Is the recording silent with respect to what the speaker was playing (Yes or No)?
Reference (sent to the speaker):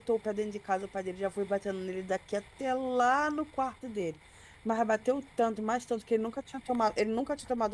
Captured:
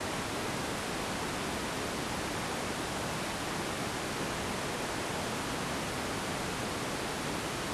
Yes